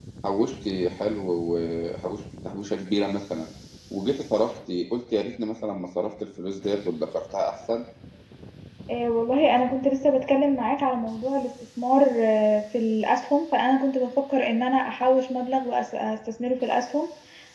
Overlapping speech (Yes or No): No